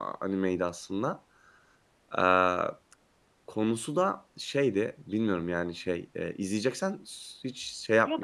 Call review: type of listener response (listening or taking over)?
taking over